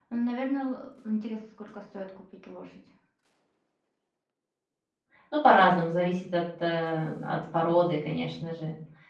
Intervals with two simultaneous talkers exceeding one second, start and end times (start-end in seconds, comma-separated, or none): none